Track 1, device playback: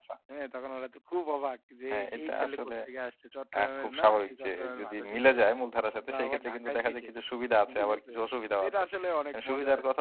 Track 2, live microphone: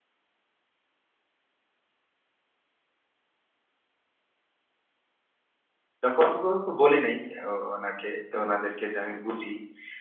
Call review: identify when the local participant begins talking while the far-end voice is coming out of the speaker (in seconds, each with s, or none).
6.0 s